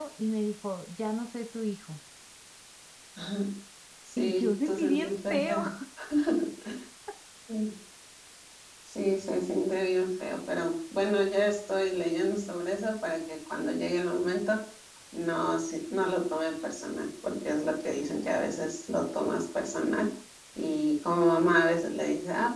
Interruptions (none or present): present